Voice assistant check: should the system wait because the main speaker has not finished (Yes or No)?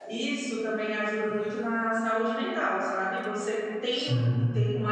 Yes